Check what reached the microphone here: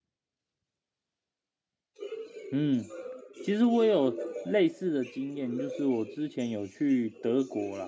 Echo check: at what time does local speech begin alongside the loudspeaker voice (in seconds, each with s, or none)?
2.5 s